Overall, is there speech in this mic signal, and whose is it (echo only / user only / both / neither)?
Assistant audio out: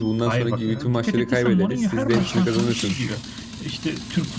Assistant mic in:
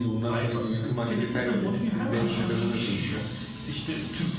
echo only